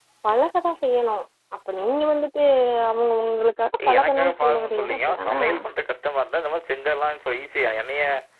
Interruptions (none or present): present